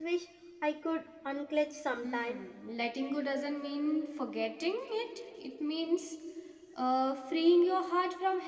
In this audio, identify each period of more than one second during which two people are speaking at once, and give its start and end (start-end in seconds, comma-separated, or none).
none